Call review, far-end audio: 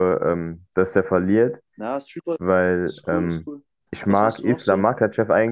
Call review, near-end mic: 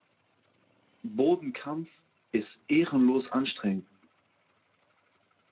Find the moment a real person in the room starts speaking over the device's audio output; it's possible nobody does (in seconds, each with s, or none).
1.0 s